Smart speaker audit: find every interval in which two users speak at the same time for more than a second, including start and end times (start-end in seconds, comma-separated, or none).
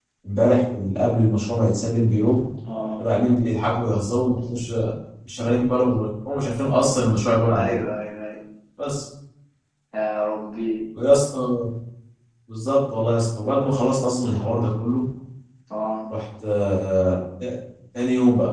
none